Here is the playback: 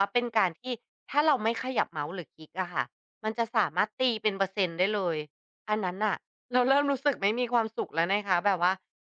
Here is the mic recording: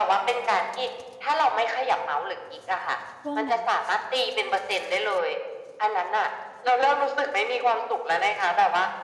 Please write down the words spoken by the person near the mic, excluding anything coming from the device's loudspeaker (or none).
ช่วงนั้นน่ะ